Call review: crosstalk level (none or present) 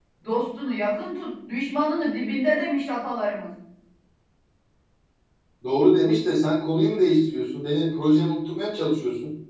none